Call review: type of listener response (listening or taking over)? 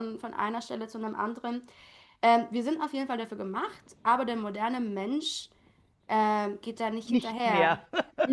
listening